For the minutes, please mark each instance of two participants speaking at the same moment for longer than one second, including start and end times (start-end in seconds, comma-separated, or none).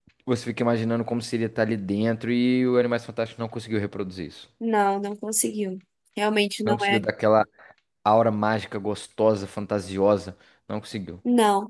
none